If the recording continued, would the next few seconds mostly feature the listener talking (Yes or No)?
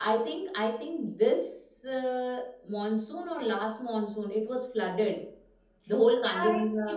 Yes